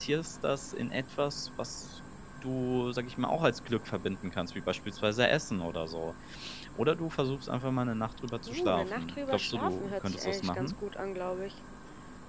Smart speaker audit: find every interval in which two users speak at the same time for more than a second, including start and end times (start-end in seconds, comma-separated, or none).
8.5-10.7